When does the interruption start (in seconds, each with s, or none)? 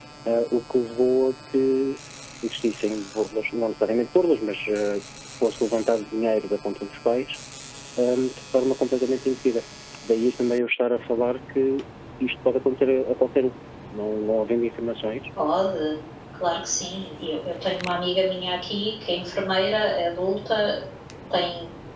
none